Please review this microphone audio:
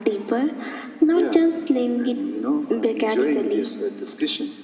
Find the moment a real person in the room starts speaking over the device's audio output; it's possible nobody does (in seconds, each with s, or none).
none